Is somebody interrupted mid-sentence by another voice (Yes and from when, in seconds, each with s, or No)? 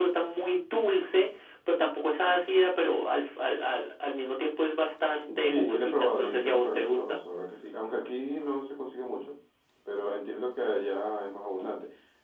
Yes, from 5.3 s